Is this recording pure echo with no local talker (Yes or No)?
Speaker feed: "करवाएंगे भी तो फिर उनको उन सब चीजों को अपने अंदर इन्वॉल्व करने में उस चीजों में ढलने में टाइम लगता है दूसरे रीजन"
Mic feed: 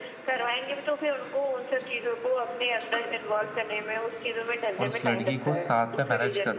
No